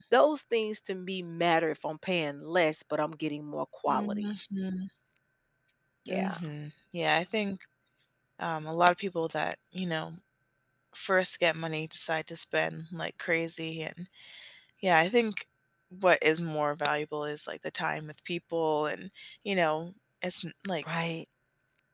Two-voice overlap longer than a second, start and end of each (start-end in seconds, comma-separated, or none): none